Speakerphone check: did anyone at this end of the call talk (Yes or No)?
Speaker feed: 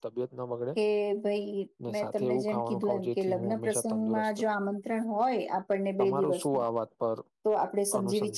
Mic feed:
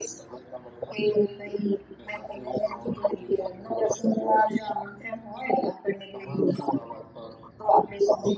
No